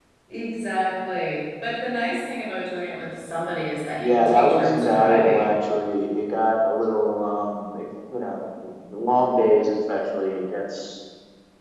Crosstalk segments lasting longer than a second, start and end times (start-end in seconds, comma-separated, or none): 4.0-5.5